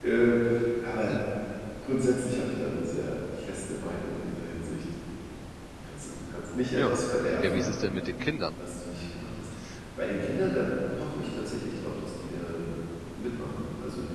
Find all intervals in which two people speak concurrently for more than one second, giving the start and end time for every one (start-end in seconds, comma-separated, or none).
none